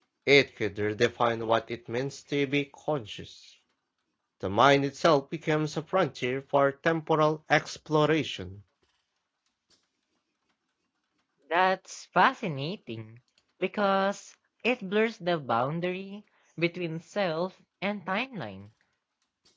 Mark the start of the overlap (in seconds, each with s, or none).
none